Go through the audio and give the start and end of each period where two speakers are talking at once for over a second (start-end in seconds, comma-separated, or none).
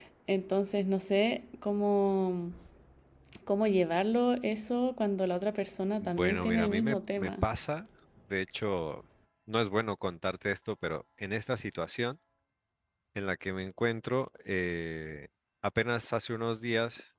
6.0-7.4